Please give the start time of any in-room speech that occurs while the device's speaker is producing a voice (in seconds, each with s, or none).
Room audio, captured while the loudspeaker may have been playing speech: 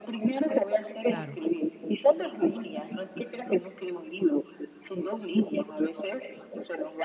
1.0 s